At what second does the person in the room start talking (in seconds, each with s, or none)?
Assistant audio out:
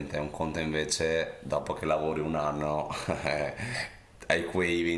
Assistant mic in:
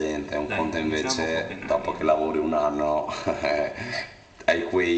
0.4 s